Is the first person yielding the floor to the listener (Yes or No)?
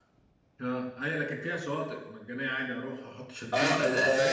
Yes